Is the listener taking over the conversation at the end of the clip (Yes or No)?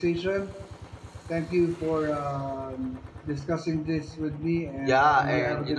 Yes